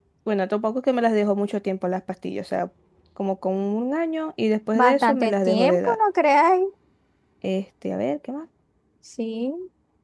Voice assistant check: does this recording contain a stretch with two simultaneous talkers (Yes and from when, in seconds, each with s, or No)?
Yes, from 4.8 s